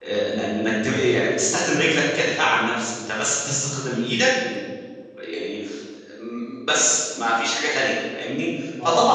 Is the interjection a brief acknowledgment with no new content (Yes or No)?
Yes